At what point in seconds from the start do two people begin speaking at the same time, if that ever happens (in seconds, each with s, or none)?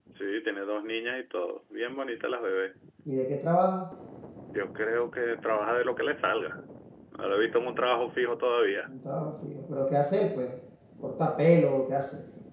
none